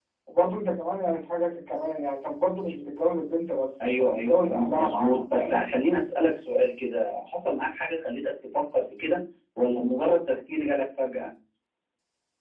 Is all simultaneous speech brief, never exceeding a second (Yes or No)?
No